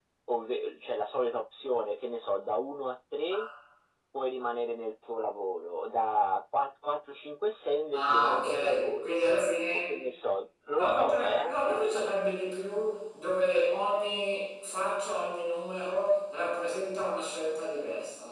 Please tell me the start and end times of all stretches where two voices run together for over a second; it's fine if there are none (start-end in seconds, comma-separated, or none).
7.9-9.2, 10.8-12.1